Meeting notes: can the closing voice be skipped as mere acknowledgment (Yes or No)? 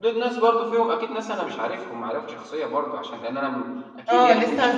No